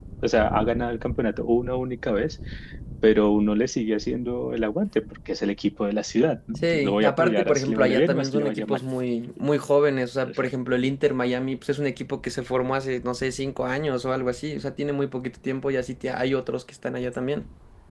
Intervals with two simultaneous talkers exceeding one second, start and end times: 6.6-8.8

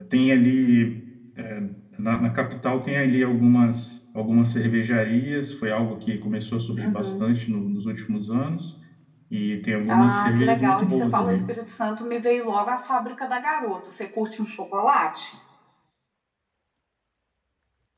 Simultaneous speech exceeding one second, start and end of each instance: 9.9-11.4

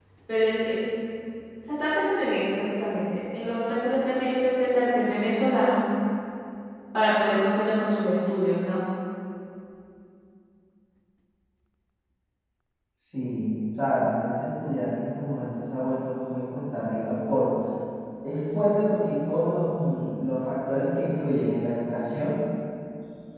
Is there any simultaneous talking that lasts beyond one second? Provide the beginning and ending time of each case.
none

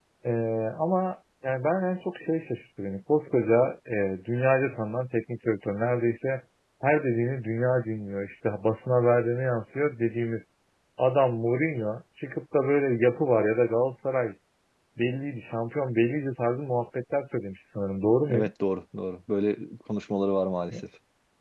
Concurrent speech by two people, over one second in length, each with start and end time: none

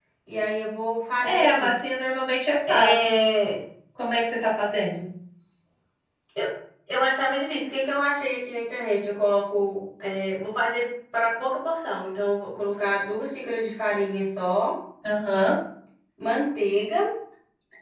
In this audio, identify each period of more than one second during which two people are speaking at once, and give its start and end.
none

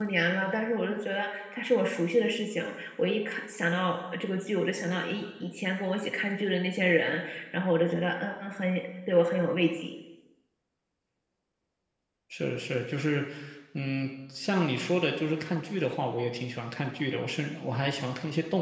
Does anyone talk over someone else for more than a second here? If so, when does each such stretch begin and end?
none

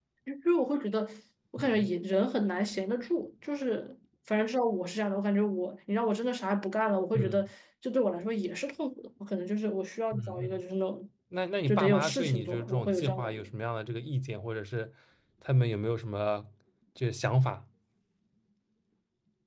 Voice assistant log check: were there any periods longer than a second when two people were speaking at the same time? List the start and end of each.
11.7-13.4

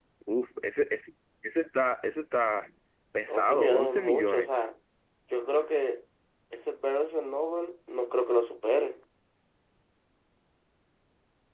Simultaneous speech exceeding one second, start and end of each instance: 3.3-4.5

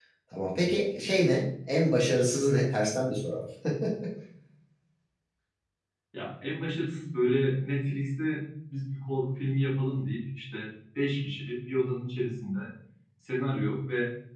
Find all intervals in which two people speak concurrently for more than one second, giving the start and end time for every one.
none

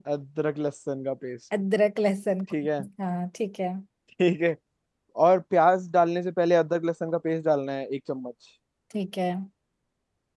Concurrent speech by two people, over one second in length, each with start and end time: none

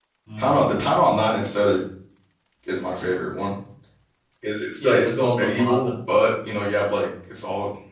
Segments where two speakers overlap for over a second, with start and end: 4.8-6.3

